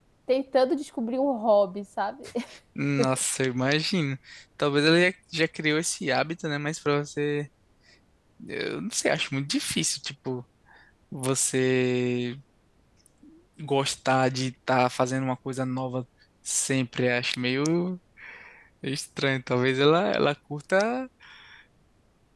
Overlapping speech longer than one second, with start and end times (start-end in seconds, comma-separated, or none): none